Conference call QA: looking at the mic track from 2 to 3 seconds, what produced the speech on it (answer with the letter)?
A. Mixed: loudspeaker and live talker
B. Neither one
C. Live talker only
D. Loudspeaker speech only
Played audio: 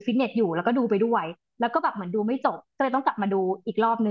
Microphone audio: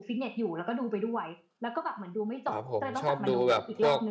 A